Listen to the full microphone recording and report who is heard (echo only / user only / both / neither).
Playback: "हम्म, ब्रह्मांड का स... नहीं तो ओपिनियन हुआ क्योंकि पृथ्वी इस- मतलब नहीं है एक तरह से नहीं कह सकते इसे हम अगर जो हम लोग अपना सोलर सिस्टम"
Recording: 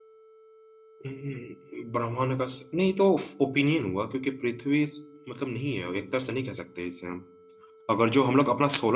echo only